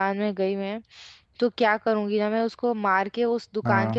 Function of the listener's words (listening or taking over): listening